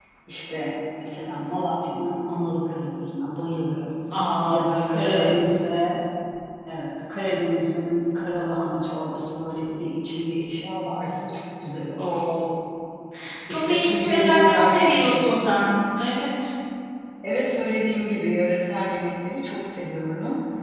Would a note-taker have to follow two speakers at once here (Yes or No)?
Yes